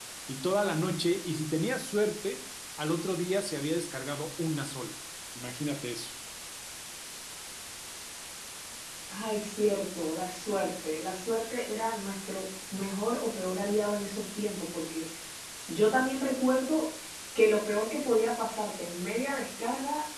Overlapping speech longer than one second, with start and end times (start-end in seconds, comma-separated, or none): none